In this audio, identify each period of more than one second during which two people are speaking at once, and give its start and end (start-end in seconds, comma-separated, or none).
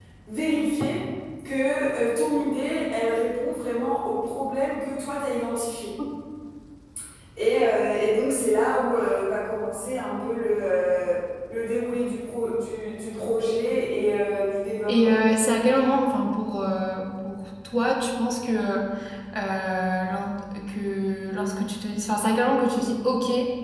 none